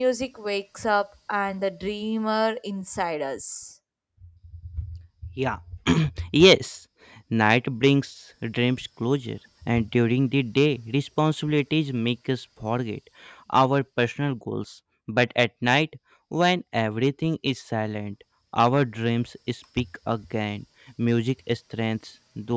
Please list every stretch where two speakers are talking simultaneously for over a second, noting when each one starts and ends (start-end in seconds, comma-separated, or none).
none